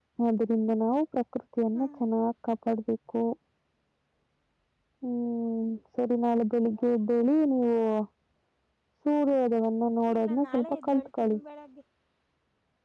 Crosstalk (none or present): present